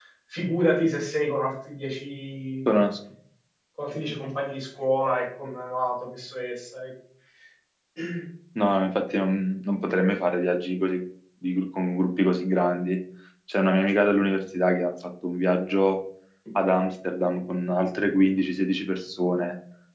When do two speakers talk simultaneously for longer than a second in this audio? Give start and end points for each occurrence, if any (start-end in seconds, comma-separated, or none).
none